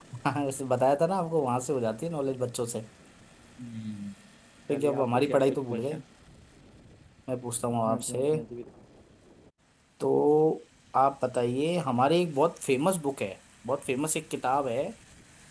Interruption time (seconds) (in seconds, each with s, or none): 4.7 s